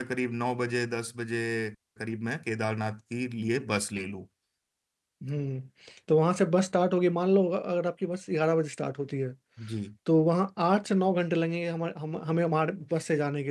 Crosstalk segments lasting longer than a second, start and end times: none

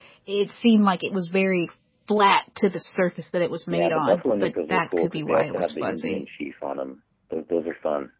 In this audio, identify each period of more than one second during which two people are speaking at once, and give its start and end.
3.7-6.2

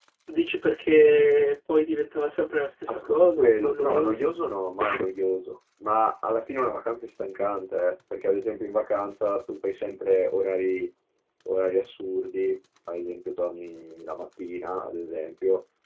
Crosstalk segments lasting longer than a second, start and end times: 2.9-4.2

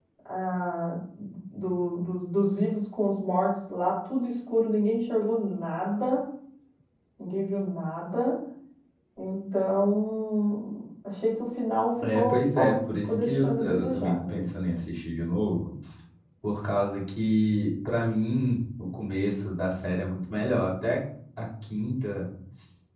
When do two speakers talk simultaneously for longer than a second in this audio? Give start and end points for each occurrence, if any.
12.0-14.4

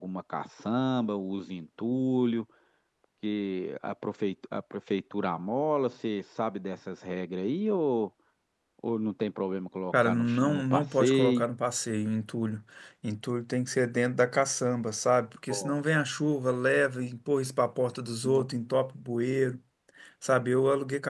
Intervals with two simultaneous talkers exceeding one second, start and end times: 10.0-11.5

